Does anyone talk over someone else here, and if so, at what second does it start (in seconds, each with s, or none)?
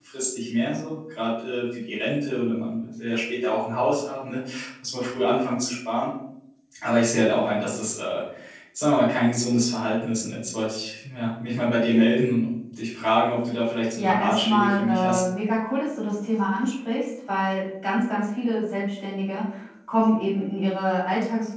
13.9 s